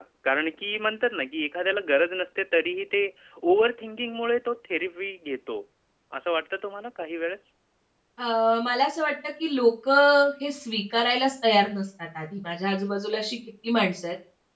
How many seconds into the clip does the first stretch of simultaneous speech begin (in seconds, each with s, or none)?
none